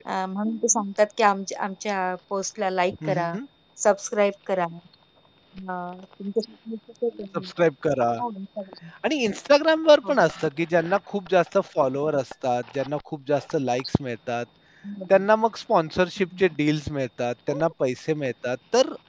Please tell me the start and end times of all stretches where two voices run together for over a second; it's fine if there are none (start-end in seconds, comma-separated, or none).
none